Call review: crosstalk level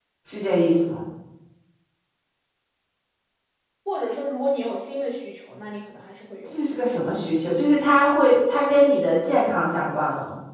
none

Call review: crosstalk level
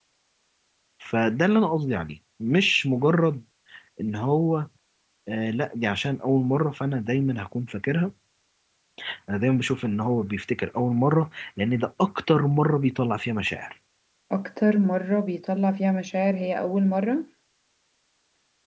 none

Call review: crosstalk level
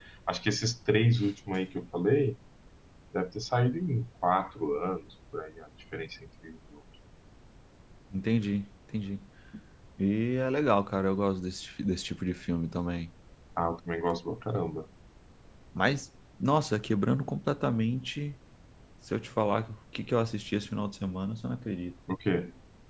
none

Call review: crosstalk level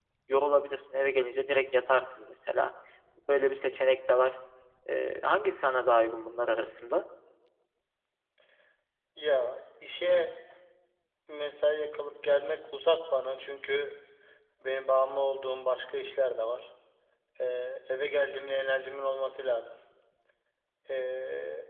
none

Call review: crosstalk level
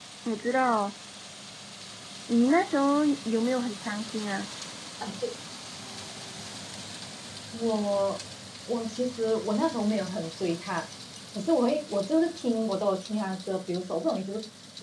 none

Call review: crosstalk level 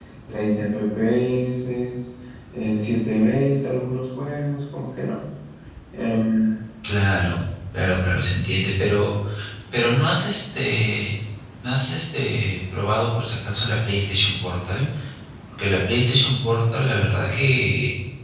none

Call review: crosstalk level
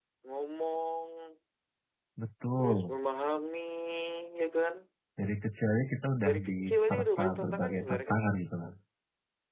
present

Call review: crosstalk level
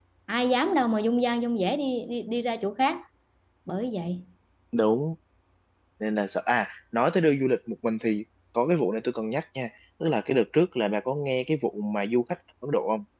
none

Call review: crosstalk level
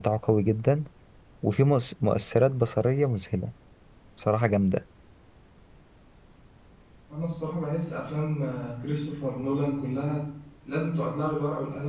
none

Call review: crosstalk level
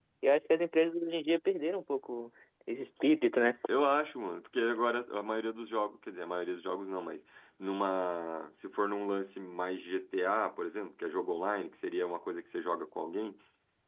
none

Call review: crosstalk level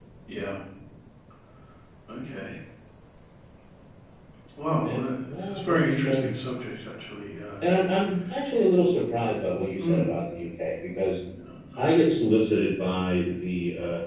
present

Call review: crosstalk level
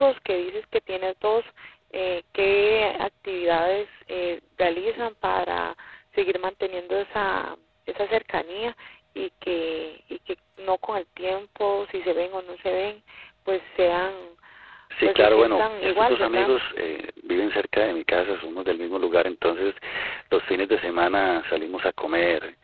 present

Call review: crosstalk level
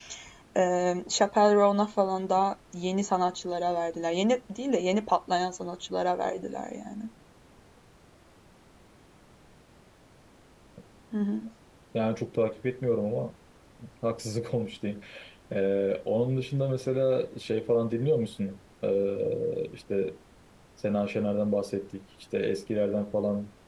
none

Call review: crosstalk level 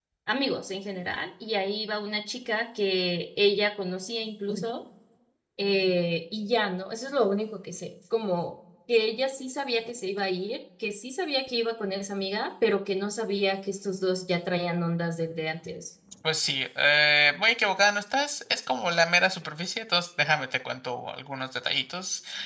none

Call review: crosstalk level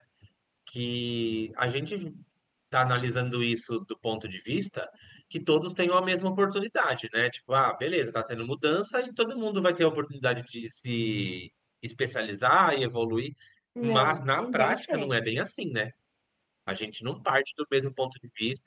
present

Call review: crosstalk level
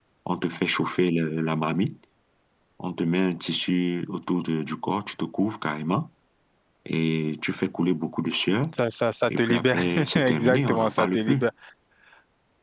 present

